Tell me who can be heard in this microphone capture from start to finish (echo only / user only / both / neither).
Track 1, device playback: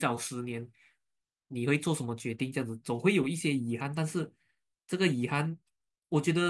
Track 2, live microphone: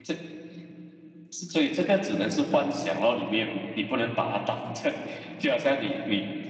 user only